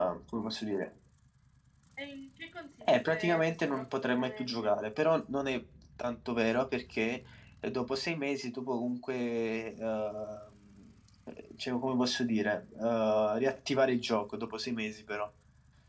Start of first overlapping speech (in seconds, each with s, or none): 3.1 s